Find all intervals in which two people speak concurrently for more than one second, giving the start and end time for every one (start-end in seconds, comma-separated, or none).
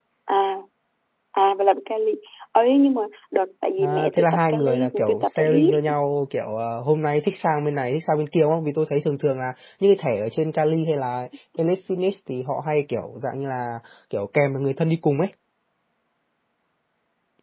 3.8-5.8